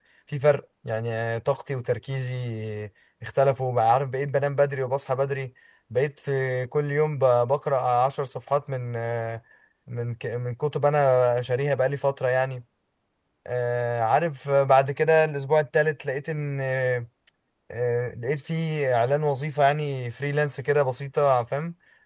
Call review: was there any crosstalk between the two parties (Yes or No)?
No